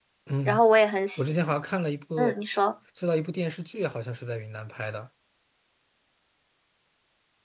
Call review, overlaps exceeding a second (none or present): none